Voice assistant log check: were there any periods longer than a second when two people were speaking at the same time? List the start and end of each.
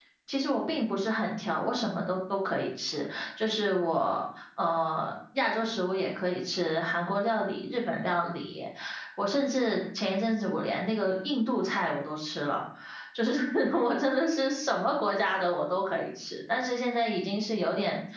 none

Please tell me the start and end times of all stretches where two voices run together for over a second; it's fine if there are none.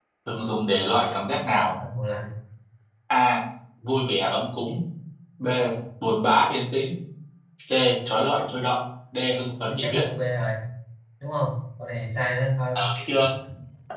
none

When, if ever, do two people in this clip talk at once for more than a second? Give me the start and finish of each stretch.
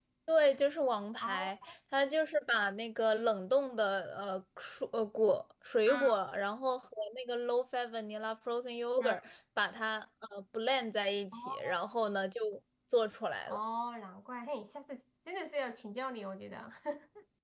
none

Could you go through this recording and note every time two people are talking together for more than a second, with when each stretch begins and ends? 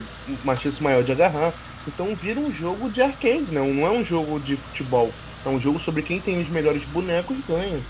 none

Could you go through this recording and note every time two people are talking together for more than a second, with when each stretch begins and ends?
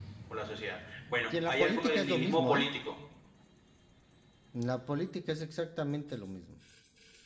1.3-2.6

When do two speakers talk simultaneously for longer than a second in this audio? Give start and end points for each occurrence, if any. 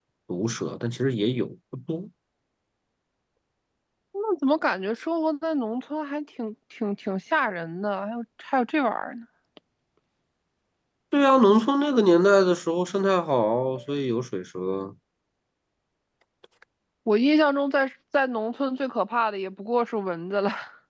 none

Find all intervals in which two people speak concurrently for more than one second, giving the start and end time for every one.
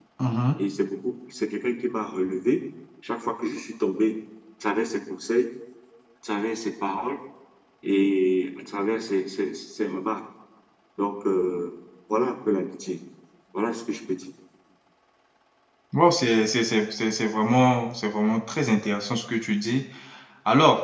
none

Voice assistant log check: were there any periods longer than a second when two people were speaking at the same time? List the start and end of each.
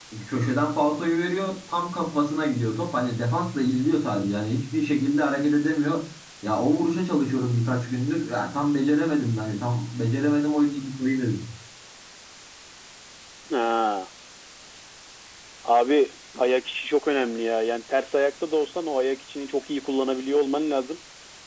none

